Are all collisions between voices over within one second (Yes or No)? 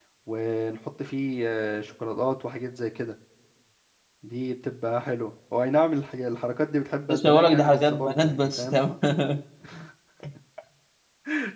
No